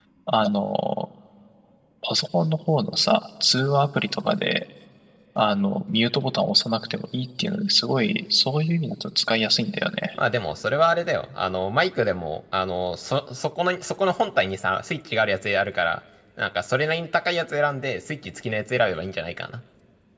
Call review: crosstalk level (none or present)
none